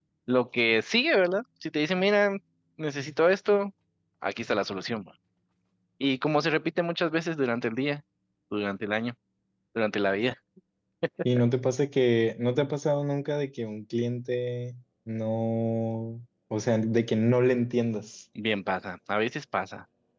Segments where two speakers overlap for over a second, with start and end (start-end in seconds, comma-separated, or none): none